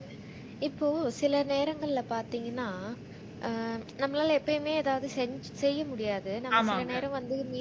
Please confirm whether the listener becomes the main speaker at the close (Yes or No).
No